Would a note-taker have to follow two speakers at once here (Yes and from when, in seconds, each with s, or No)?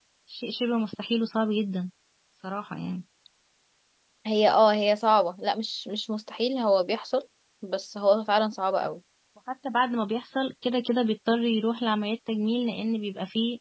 No